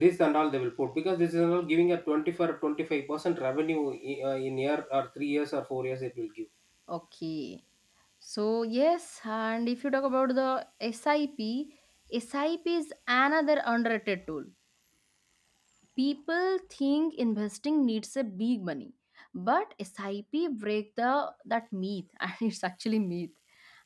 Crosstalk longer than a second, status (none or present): none